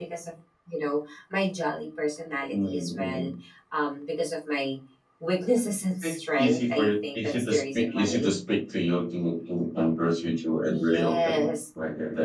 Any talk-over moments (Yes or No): Yes